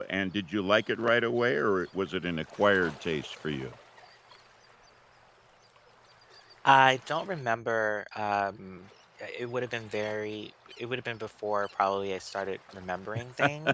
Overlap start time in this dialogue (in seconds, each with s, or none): none